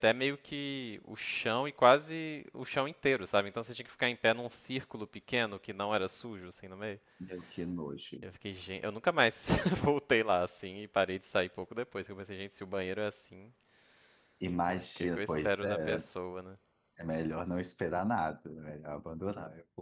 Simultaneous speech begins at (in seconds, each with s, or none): 14.6 s